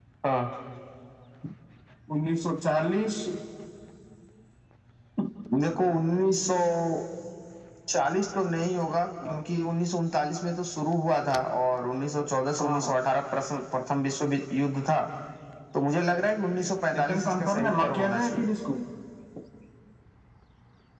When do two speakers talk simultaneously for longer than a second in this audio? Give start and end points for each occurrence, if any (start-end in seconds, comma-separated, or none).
16.9-18.5